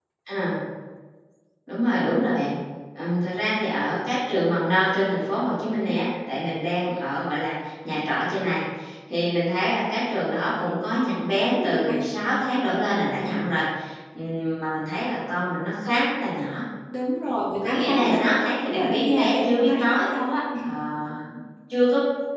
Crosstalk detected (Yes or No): Yes